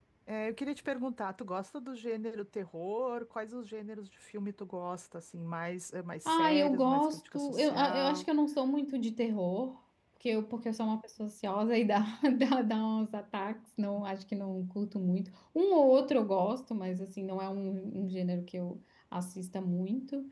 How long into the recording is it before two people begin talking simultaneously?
6.2 s

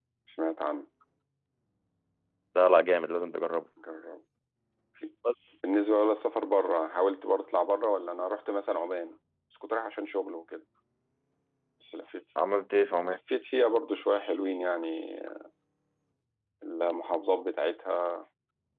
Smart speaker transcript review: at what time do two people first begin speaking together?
none

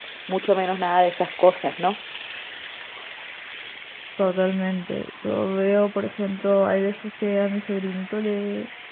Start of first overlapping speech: none

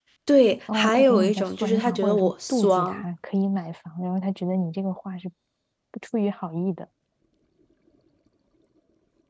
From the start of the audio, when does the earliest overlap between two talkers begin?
0.7 s

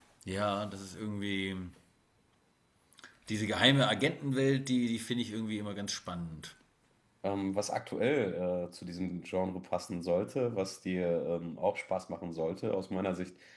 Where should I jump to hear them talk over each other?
none

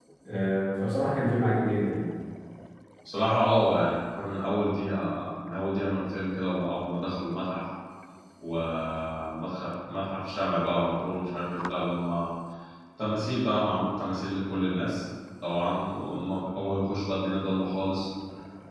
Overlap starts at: none

